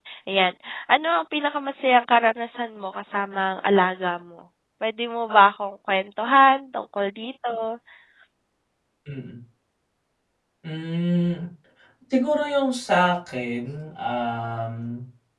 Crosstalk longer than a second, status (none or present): none